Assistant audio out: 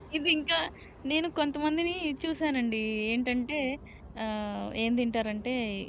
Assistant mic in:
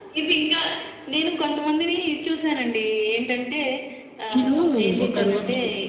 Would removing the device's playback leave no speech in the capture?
No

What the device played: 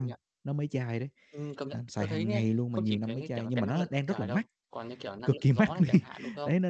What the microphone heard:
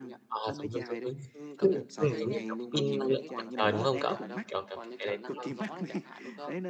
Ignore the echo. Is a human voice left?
Yes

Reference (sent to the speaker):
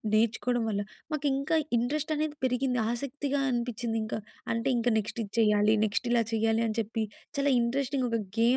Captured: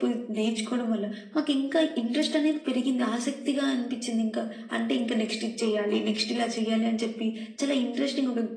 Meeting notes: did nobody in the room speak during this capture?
Yes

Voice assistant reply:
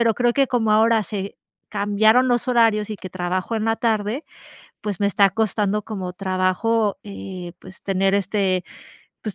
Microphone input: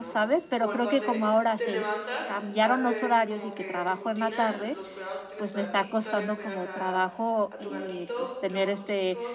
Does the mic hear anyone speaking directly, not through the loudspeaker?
Yes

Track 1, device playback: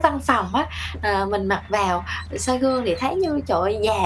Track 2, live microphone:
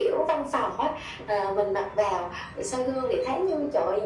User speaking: No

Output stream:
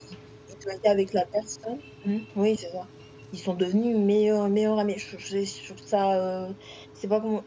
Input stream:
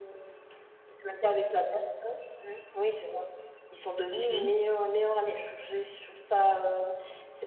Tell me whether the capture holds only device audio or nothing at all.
No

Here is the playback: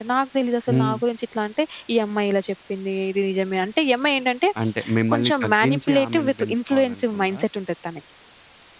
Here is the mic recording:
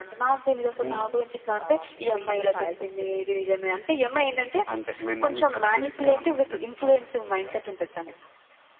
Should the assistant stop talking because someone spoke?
Yes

